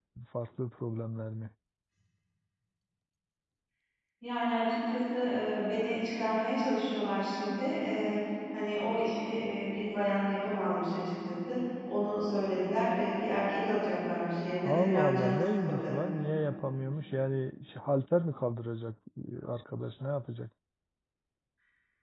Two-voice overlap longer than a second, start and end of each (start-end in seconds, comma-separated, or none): 14.6-15.9